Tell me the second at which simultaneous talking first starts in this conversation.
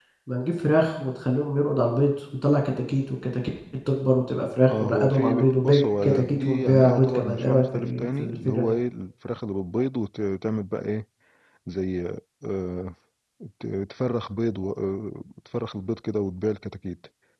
4.7 s

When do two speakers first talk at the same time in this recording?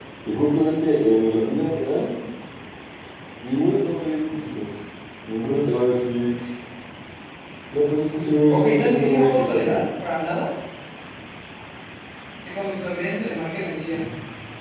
8.5 s

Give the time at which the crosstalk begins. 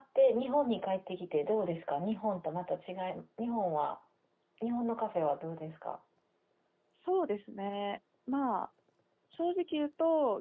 none

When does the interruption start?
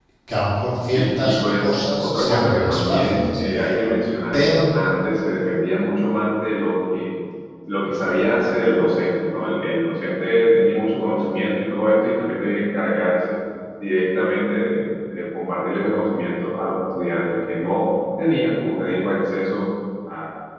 0.9 s

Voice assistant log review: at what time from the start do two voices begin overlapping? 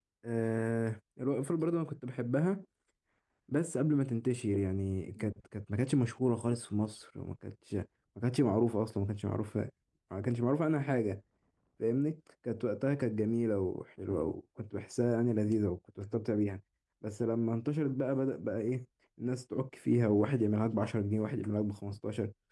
none

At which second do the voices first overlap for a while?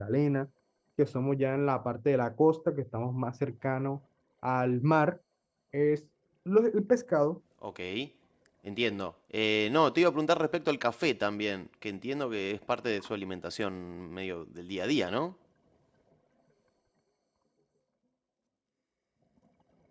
none

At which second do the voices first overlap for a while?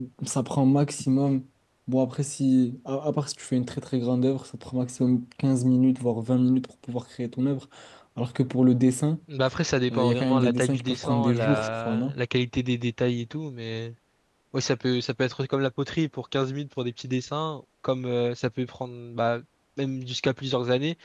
9.9 s

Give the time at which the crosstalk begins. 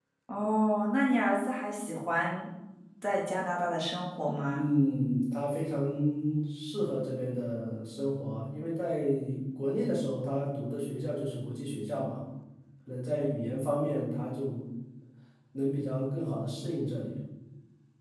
none

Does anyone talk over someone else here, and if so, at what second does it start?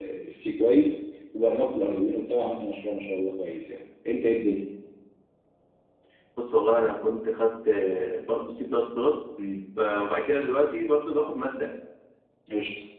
none

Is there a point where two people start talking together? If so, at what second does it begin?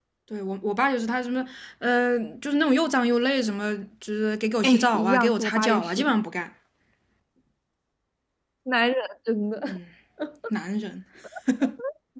4.6 s

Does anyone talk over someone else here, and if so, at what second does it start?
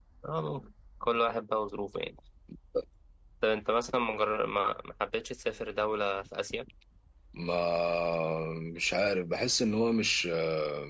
none

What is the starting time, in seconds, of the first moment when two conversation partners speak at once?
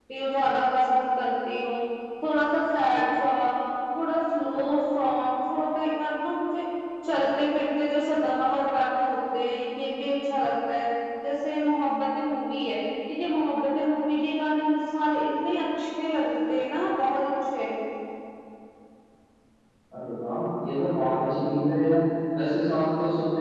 none

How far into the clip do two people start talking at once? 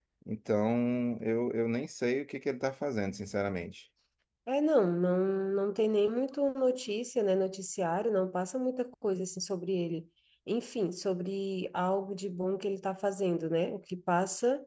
none

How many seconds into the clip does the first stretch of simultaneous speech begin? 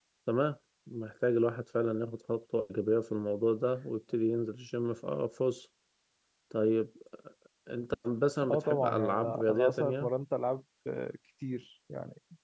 8.4 s

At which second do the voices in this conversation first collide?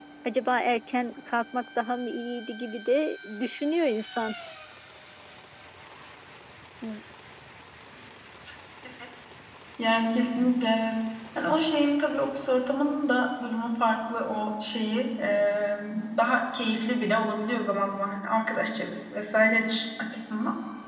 none

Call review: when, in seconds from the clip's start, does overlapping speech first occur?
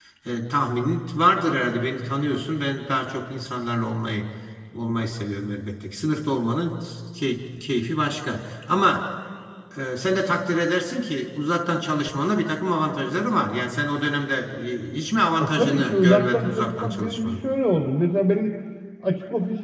15.4 s

